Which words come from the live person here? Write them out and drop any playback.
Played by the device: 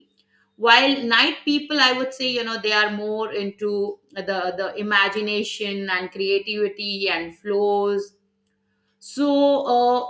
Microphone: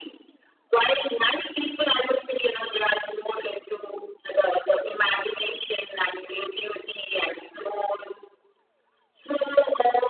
none

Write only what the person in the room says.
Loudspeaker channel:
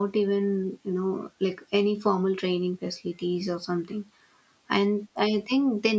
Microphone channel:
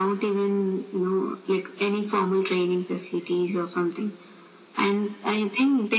none

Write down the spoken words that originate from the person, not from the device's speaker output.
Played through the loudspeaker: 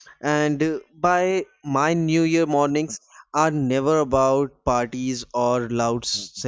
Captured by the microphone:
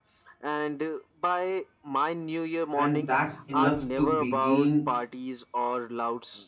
and that's enough to begin

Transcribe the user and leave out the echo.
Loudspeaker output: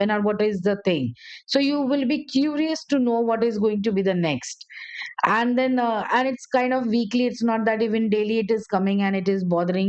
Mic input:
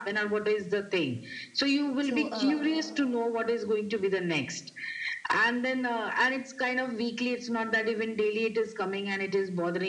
so uh,

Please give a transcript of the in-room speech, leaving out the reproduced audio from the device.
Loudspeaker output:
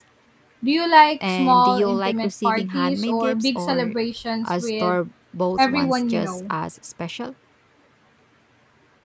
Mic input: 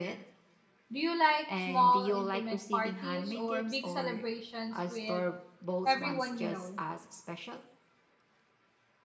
none

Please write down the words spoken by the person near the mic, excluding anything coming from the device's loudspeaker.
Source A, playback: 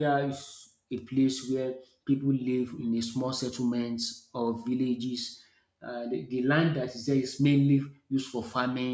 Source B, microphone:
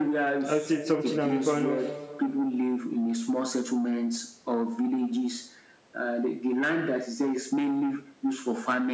i'd say it's something i'm a fan of

